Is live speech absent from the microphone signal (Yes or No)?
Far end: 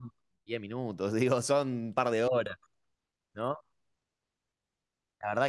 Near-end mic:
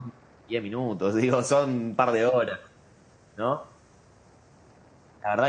Yes